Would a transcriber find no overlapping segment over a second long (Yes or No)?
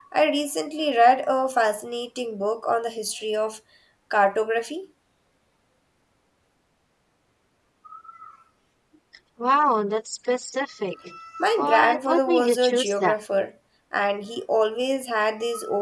No